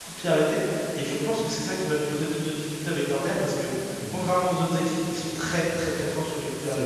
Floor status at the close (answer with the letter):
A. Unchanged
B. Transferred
B